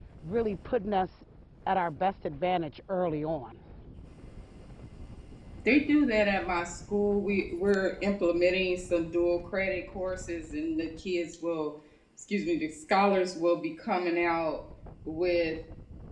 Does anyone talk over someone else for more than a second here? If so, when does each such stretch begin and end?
none

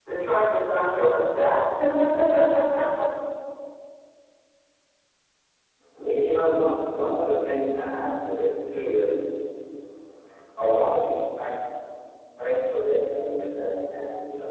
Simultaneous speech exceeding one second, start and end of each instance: none

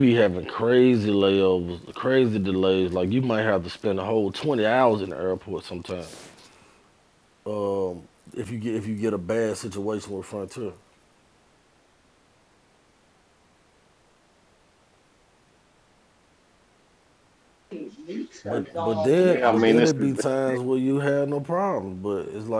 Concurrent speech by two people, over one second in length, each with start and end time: 18.5-20.1

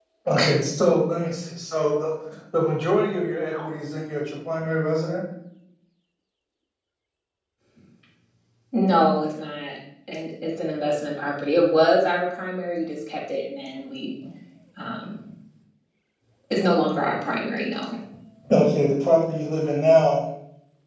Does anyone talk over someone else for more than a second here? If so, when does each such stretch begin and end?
none

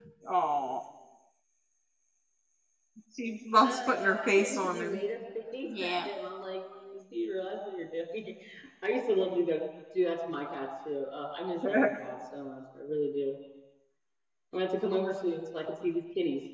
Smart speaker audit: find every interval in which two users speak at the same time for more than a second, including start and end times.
3.6-5.0

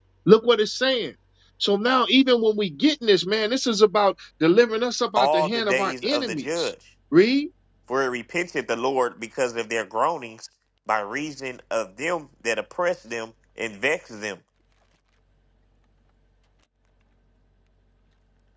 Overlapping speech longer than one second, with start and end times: 5.2-6.7

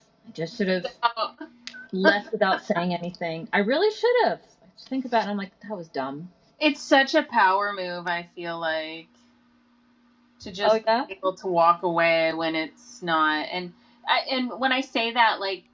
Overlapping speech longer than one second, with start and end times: none

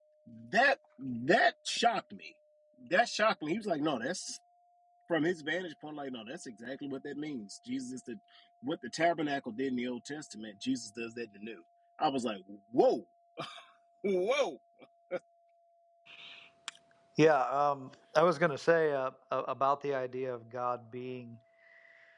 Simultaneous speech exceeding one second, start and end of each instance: none

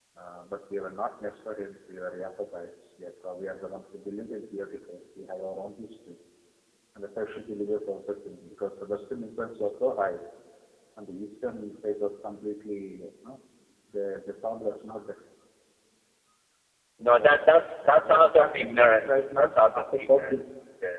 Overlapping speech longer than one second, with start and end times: 17.1-20.5

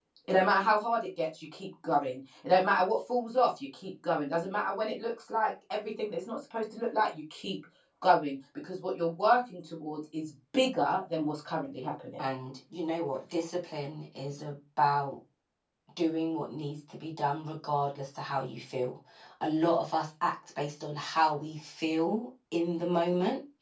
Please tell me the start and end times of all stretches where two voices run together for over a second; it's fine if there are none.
none

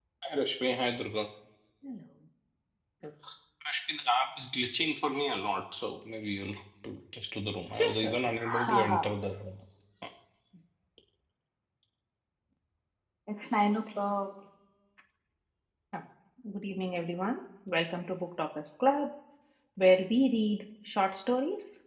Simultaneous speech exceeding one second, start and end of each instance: 7.7-9.1

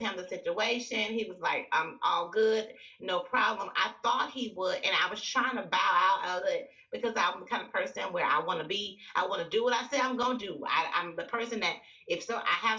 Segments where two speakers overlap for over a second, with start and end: none

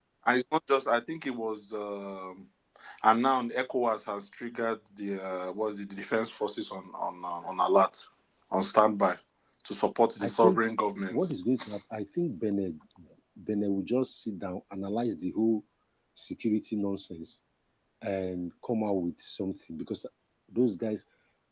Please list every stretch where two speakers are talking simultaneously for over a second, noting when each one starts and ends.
none

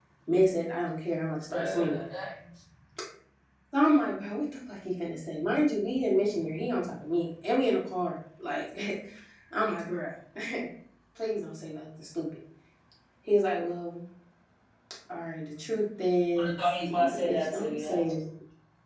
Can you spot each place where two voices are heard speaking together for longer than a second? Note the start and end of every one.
16.4-18.0

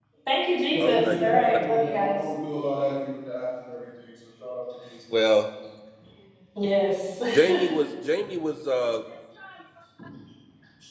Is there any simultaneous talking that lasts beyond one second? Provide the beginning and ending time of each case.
0.7-2.2

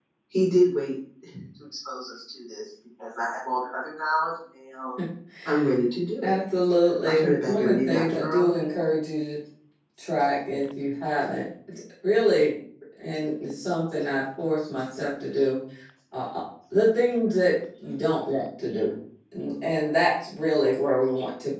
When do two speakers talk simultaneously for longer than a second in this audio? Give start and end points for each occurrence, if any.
7.0-8.5

